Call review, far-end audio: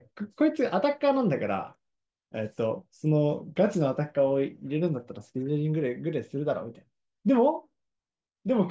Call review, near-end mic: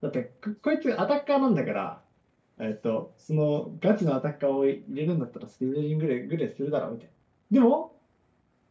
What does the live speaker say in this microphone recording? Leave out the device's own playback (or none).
none